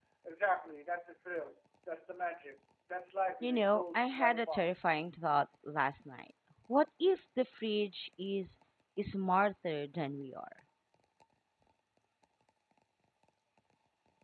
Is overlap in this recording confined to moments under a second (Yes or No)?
No